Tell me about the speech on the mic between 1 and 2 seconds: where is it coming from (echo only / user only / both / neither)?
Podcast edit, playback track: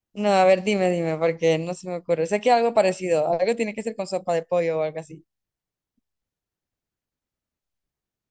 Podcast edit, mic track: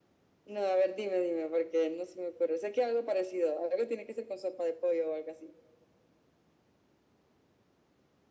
echo only